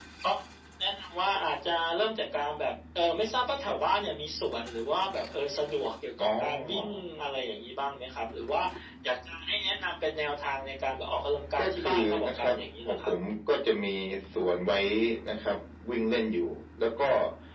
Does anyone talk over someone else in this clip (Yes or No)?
Yes